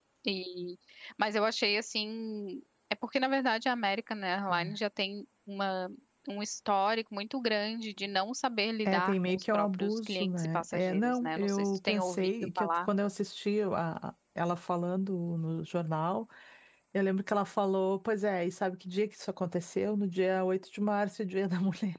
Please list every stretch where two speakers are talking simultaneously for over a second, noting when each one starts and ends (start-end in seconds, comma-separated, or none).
8.8-12.8